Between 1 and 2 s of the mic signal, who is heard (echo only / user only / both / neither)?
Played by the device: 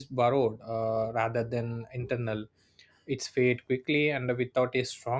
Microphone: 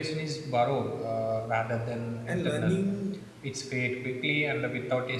echo only